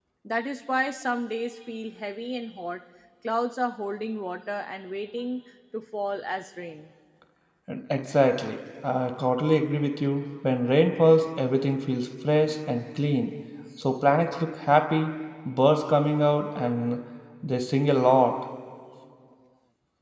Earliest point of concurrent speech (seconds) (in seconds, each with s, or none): none